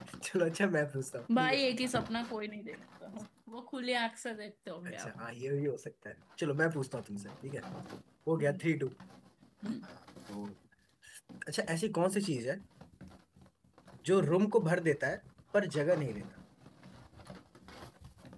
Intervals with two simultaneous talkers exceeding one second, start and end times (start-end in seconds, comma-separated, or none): none